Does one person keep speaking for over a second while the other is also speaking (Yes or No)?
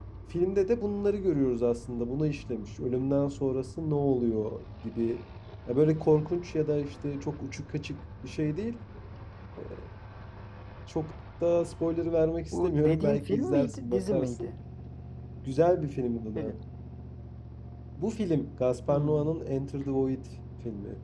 Yes